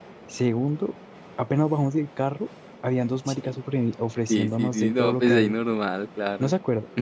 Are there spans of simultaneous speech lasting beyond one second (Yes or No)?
Yes